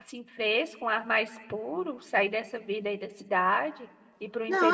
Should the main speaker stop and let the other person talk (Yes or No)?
Yes